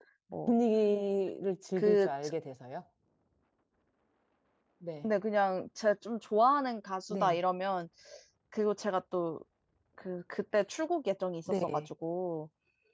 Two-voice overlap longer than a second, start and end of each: none

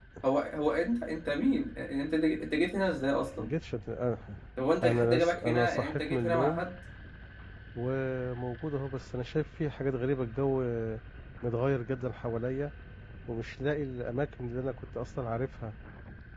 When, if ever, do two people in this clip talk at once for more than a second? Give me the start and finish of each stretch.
4.8-6.6

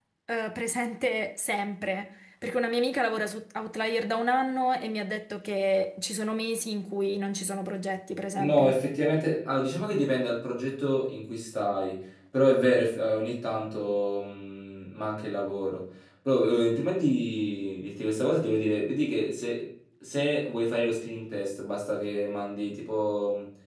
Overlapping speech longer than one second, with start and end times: none

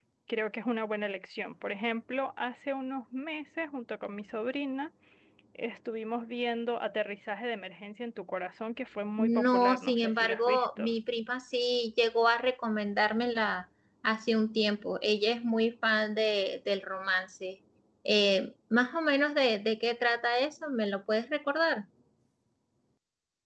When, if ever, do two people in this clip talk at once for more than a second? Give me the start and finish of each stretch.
9.2-10.9

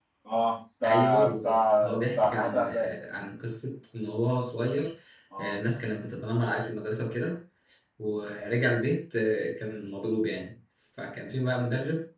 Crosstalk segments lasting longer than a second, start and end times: 0.8-3.2

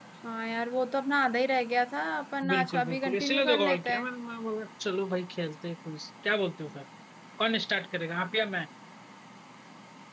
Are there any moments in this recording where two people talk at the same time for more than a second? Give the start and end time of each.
2.5-4.1

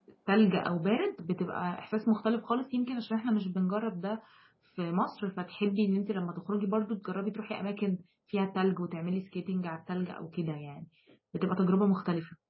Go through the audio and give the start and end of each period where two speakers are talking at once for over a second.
none

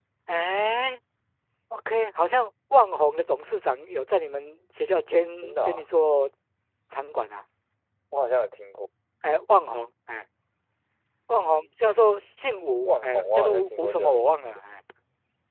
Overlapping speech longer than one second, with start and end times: 12.8-14.6

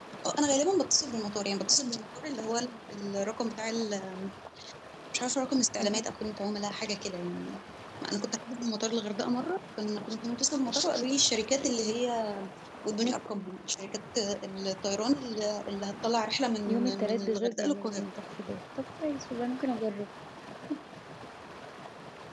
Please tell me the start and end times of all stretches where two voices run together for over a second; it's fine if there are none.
16.7-18.1

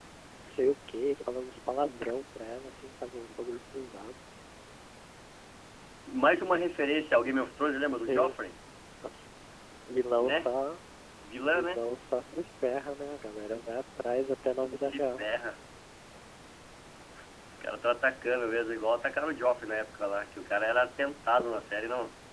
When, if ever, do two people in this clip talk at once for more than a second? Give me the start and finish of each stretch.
none

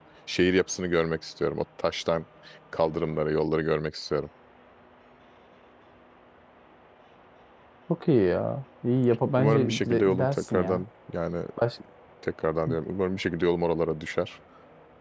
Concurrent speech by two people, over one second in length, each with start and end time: 9.4-10.8

